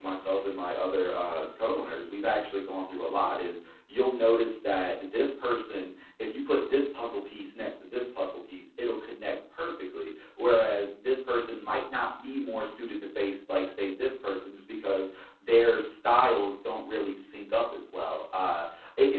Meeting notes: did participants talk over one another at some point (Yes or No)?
No